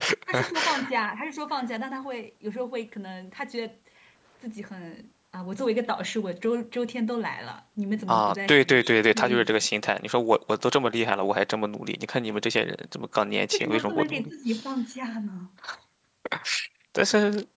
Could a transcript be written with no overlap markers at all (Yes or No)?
No